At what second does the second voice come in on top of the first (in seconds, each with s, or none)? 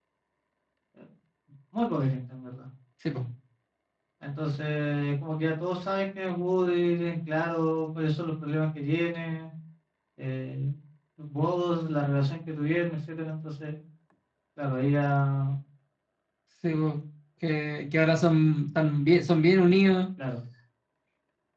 none